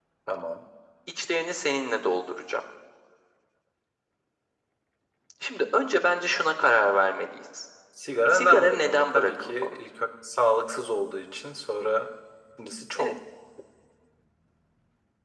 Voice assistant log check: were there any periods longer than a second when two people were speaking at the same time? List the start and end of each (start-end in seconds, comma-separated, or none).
8.3-9.7